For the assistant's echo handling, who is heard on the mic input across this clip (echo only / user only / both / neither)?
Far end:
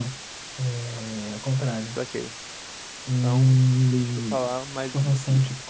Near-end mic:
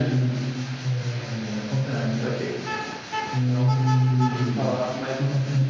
echo only